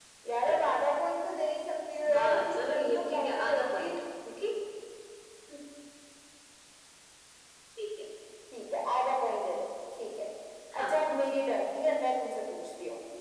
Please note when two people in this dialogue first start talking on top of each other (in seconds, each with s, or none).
2.0 s